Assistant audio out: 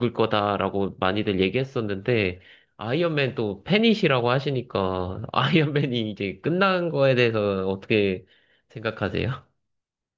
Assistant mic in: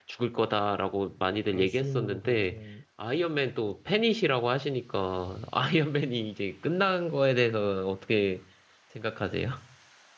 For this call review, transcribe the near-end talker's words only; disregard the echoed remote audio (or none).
아쉬움으로 그렇게